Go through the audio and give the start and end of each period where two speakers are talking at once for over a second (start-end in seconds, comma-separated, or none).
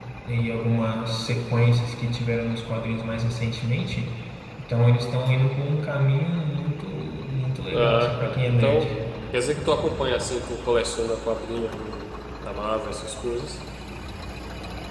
7.7-8.9